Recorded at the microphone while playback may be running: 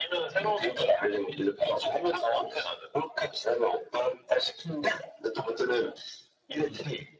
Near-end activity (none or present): none